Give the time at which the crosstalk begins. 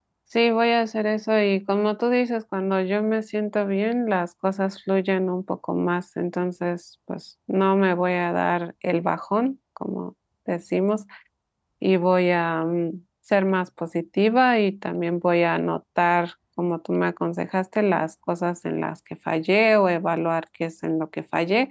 none

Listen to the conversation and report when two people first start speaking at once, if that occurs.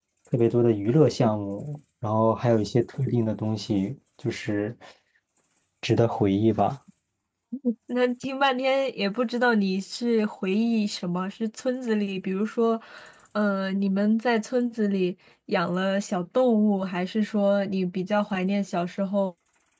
none

